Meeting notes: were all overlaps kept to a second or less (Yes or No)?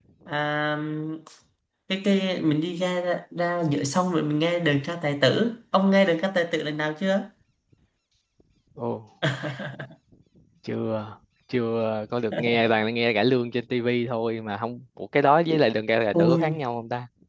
Yes